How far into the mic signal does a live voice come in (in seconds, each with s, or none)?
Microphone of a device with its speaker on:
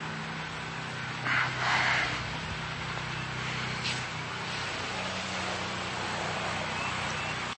none